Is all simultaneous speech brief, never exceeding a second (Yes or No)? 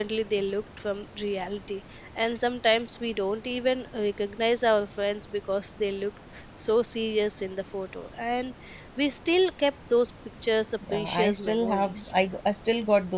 No